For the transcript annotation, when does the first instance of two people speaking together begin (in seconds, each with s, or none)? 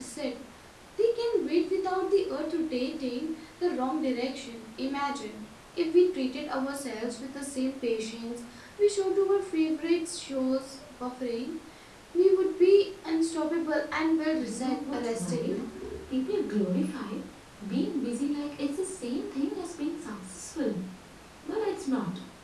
14.4 s